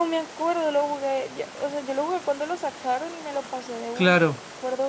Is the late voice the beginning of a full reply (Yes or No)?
Yes